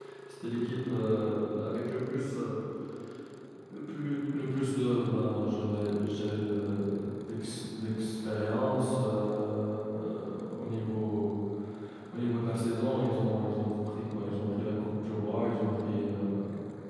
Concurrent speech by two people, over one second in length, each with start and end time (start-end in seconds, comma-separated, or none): none